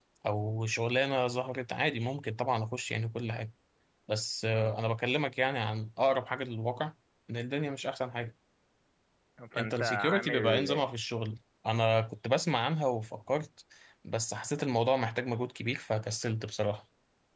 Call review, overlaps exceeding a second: present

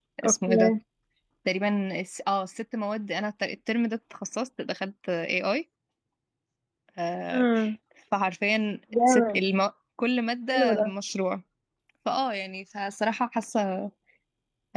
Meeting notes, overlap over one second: none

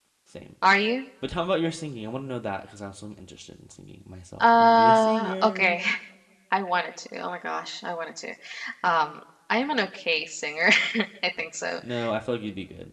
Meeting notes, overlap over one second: present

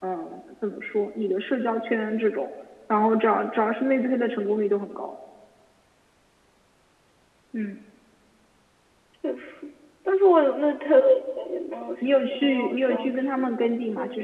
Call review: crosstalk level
present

